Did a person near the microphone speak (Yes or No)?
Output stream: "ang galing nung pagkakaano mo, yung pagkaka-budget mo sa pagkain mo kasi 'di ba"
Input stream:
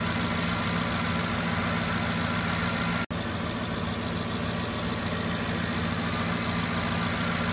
No